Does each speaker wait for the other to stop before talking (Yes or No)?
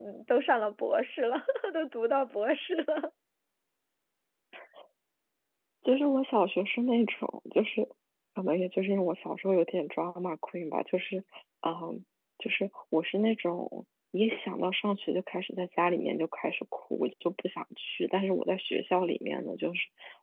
Yes